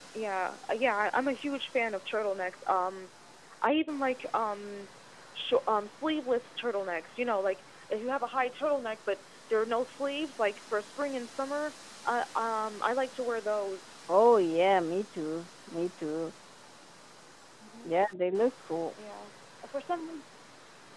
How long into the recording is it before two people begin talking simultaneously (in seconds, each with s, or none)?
none